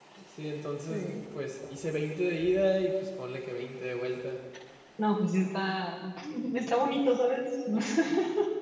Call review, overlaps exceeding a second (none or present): none